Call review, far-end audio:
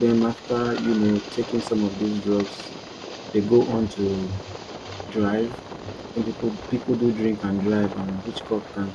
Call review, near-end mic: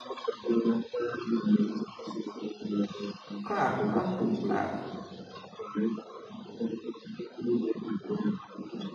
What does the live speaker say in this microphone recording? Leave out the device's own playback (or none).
crack, crack, oh, crack,